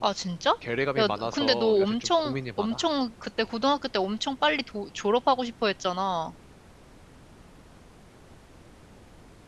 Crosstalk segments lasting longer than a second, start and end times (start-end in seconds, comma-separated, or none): 1.0-2.8